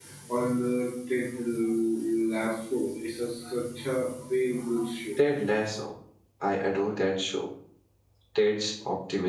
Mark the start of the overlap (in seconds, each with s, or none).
none